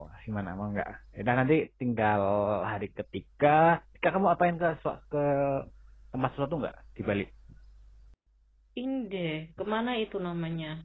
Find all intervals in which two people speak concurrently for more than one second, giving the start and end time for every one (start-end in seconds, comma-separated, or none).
none